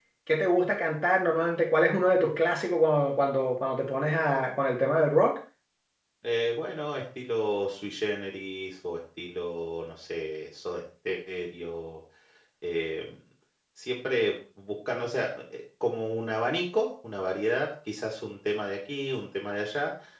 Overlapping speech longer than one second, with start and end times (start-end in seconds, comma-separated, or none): none